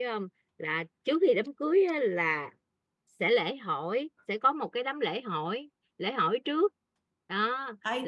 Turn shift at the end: Yes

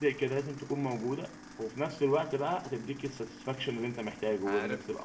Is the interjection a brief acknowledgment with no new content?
No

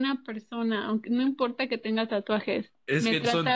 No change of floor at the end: No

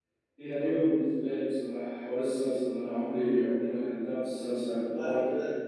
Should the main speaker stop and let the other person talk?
No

